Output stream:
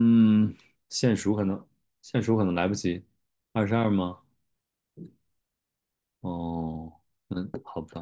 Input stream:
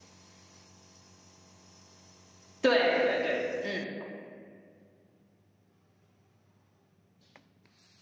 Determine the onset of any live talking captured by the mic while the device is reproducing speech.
2.6 s

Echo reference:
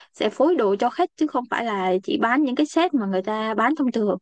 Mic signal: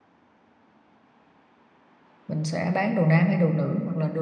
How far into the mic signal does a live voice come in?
2.2 s

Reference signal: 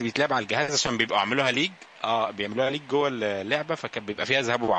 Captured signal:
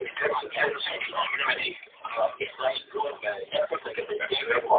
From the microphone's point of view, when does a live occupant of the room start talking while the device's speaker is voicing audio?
none

